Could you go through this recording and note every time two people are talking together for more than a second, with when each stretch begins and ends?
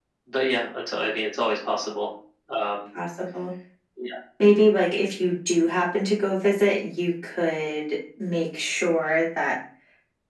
none

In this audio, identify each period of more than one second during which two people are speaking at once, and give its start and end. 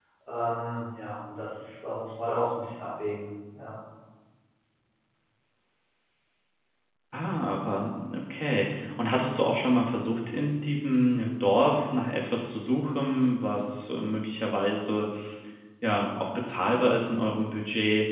none

